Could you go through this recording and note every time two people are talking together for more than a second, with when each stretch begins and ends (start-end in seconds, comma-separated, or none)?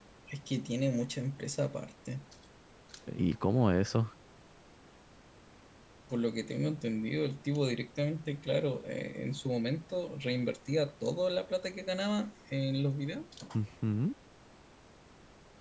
none